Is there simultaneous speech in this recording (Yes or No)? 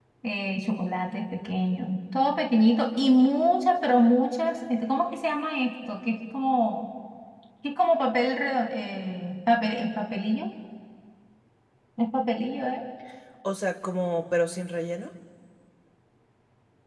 No